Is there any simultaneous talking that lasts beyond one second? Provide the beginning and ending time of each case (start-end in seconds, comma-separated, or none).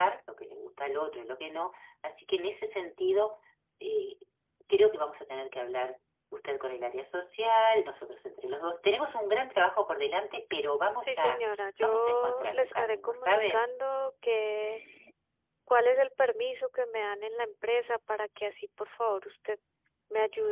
11.8-13.6